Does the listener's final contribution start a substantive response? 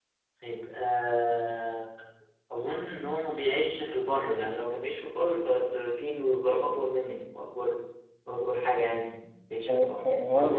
Yes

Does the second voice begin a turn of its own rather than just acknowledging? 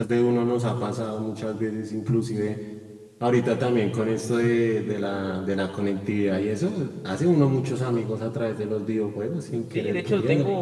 Yes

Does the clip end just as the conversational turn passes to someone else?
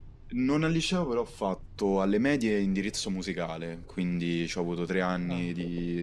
No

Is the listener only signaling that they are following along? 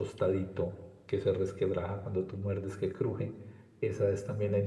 Yes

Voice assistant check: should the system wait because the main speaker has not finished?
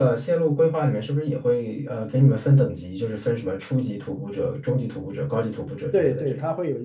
No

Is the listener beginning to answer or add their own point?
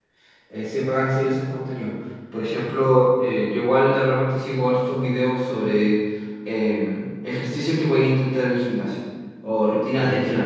No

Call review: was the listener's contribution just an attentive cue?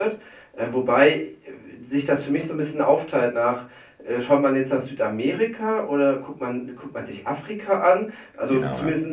Yes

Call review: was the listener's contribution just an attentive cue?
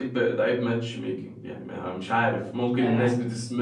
Yes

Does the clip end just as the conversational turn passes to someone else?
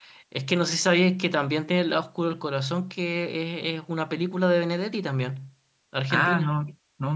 Yes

